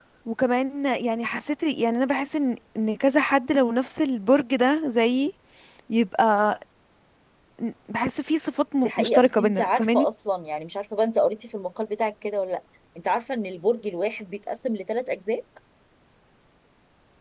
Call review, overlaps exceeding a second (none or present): present